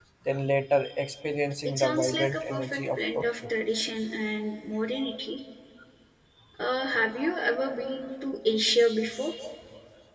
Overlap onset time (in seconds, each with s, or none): 1.6 s